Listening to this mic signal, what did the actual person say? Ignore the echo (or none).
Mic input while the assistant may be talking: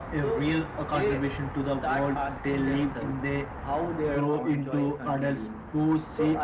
none